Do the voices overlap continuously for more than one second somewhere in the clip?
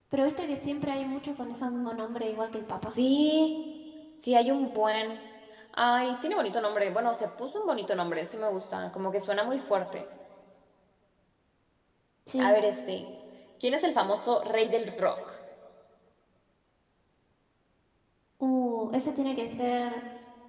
No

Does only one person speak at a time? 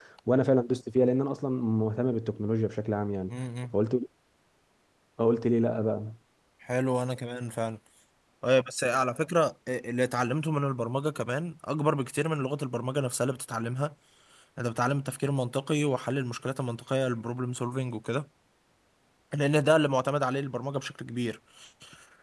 Yes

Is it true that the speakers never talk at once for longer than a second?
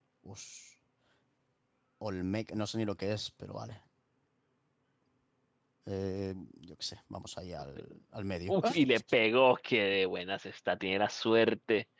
Yes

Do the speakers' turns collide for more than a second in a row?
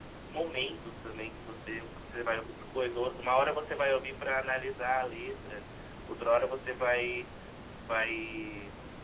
No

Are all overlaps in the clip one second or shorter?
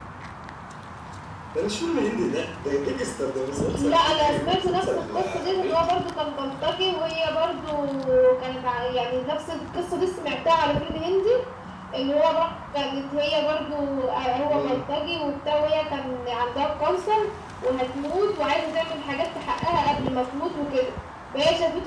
No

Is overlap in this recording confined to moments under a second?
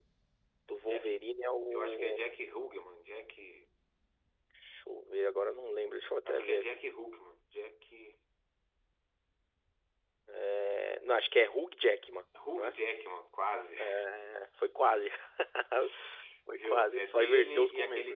No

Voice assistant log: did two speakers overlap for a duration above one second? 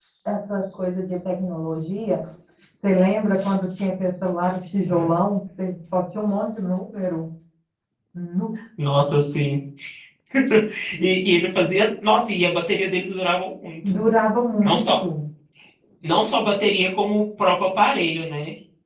No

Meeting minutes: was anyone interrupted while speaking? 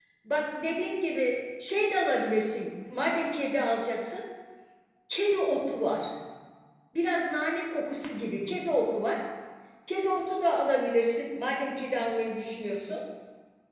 No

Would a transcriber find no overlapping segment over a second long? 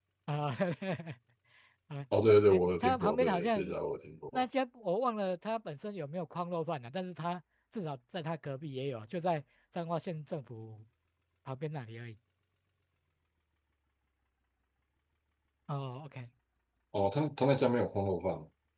No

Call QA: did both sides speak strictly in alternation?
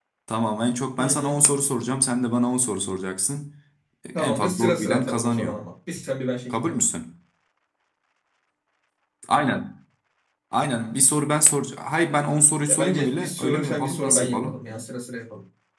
No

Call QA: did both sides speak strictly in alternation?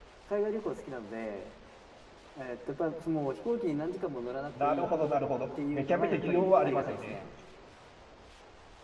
No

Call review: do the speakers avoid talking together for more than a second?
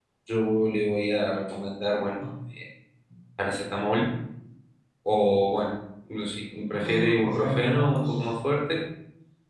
No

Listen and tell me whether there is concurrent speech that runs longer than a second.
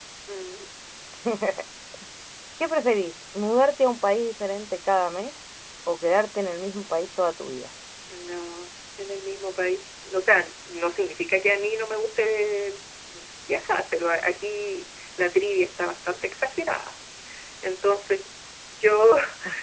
No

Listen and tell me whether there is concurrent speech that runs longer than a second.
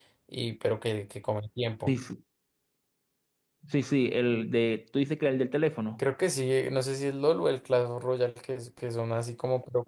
No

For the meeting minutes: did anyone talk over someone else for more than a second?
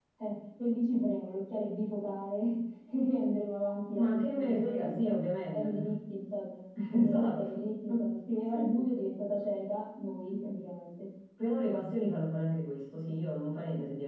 Yes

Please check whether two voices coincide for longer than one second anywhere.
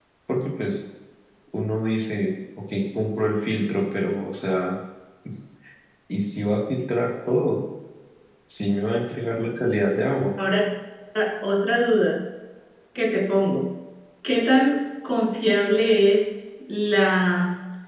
No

